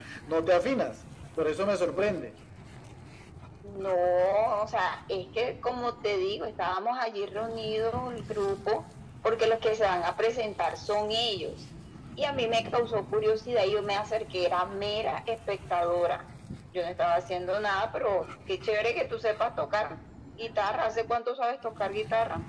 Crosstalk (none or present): none